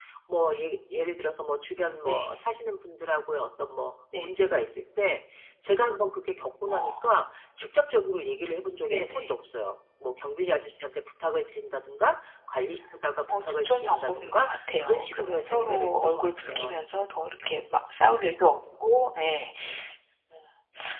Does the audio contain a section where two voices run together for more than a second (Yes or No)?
Yes